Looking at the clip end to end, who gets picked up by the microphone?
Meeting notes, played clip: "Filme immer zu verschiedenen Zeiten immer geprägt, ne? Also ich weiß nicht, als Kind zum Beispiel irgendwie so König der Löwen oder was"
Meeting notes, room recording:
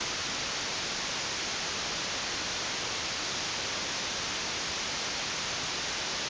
neither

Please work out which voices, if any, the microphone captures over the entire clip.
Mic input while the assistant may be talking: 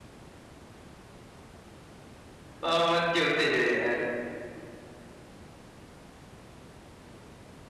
user only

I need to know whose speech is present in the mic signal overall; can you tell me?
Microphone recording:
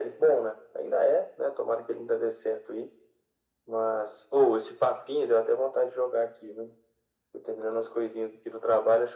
echo only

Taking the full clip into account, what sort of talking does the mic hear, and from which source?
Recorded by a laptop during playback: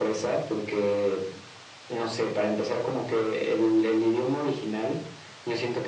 echo only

